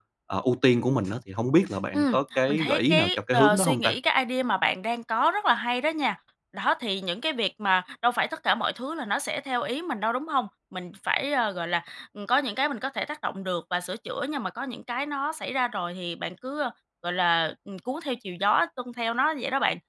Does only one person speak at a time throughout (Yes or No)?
No